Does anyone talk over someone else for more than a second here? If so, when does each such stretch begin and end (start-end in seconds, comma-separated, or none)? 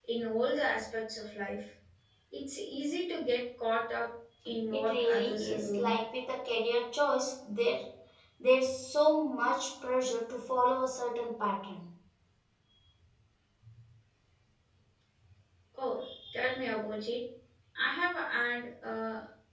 4.7-5.9